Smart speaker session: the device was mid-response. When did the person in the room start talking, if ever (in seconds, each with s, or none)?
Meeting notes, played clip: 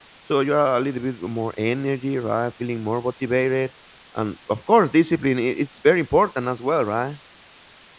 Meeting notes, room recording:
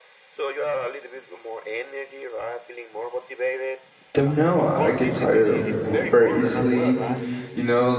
4.1 s